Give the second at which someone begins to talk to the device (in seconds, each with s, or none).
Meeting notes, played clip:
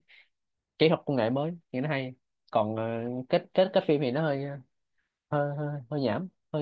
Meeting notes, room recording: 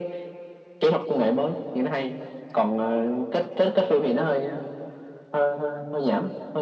none